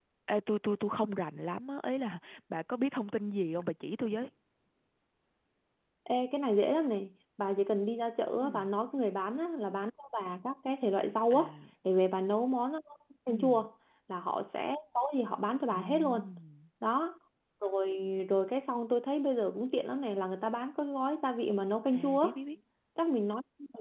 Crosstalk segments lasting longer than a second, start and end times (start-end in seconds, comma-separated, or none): none